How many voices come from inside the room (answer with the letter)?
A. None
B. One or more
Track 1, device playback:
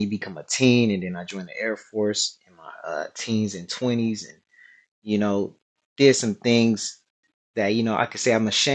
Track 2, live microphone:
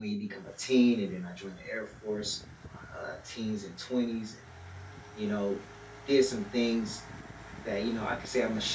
A